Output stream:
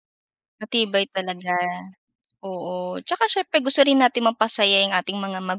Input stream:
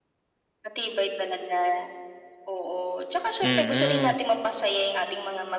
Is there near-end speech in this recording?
Yes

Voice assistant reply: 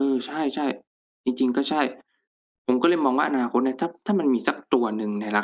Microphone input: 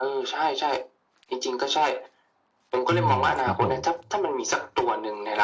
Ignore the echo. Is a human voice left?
Yes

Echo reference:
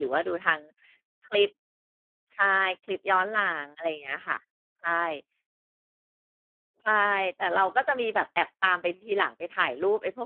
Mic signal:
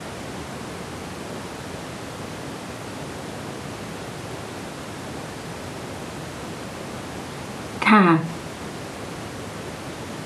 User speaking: Yes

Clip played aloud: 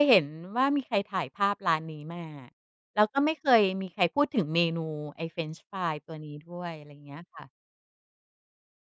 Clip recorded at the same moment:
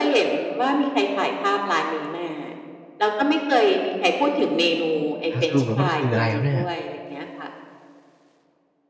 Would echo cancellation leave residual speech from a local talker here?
Yes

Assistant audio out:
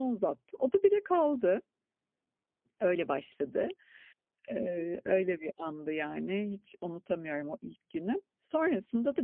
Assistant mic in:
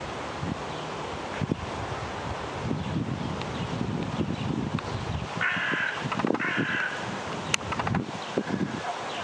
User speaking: No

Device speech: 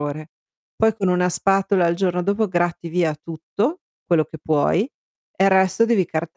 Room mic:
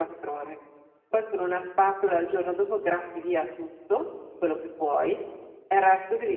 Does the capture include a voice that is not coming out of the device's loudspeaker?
No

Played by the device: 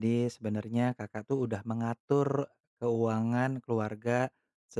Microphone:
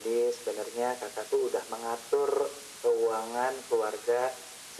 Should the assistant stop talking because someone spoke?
No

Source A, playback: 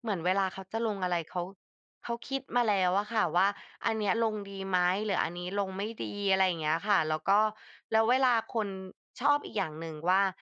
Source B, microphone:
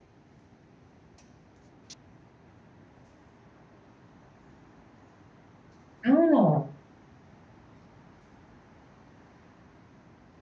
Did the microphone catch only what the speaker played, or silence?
No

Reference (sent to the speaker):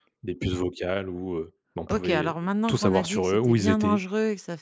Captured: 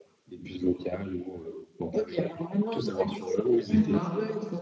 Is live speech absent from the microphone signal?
No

